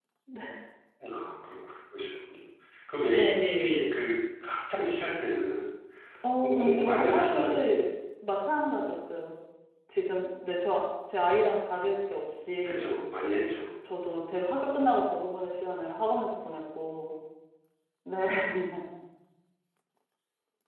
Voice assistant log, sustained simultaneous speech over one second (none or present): present